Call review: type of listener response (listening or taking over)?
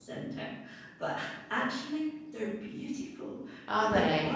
listening